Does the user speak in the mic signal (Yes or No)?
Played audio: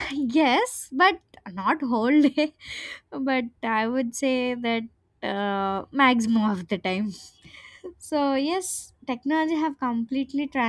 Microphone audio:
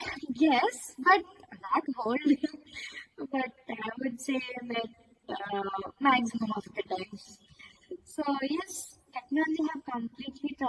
No